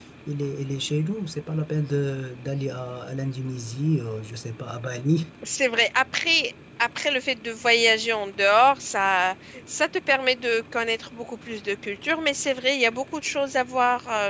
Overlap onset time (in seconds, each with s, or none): none